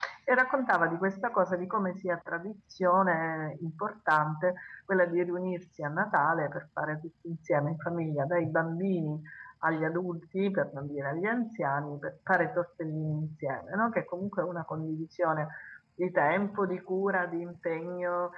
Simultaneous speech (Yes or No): No